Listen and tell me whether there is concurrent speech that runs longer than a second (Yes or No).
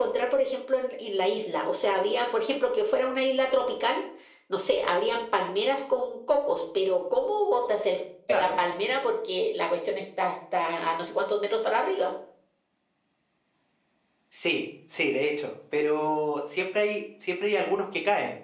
No